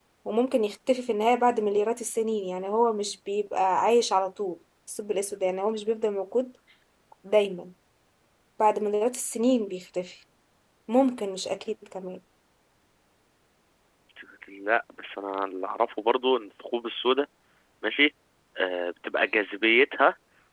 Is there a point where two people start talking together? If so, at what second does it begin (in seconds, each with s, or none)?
none